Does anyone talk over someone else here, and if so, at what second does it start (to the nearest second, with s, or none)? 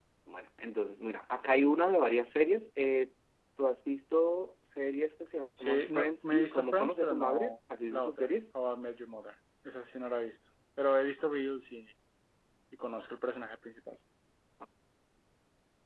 6 s